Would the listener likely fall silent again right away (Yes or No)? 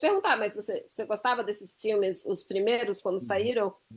No